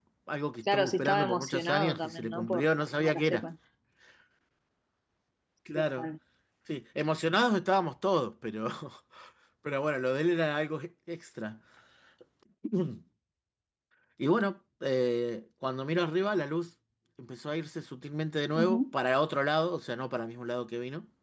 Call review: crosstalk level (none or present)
present